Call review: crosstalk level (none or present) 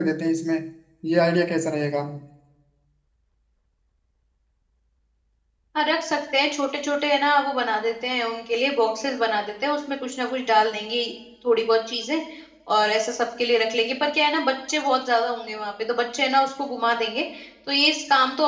none